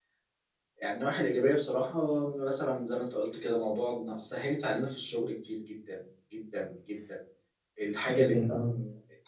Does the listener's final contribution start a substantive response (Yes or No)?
No